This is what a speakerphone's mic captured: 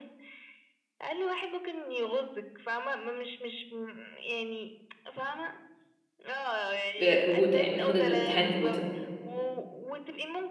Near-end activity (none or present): present